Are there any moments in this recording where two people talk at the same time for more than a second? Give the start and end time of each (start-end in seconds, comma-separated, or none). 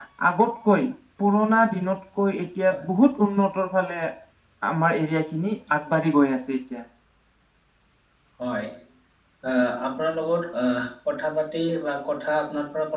none